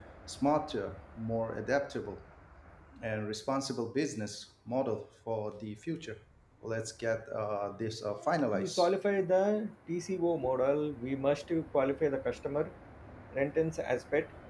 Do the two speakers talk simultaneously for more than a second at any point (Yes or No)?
No